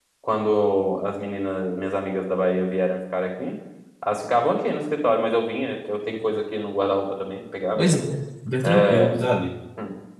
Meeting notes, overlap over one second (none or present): none